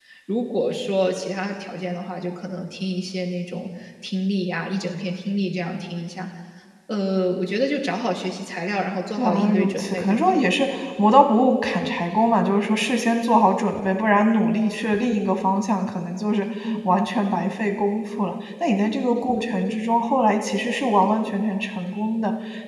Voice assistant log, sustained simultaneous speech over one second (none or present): present